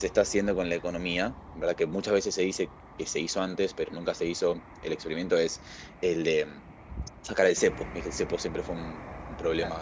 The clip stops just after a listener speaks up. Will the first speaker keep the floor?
Yes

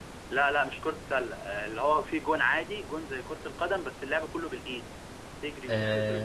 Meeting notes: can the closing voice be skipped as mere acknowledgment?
Yes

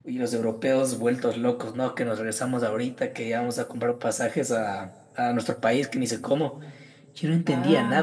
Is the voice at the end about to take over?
No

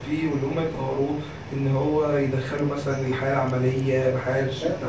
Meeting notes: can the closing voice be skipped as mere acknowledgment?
No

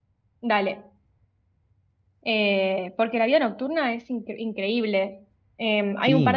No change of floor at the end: Yes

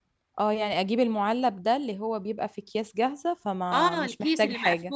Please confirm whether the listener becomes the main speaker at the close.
Yes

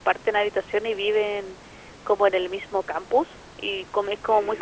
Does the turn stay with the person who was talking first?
Yes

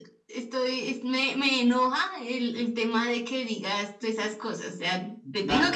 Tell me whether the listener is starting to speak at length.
Yes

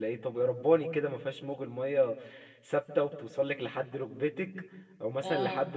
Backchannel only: Yes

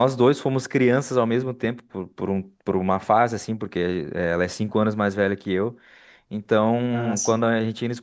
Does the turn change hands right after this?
No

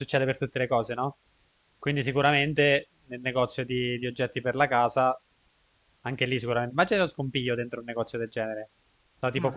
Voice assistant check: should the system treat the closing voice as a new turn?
No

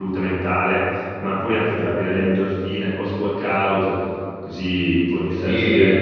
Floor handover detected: No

